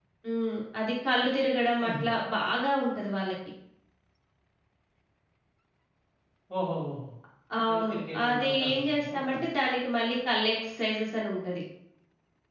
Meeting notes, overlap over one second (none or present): present